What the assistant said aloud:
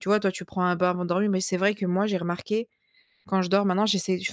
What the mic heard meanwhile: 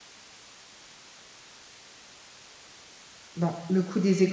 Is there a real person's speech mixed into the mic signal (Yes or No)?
Yes